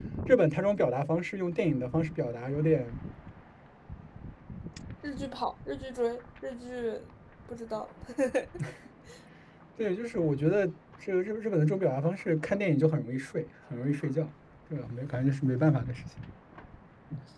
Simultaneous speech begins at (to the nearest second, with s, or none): none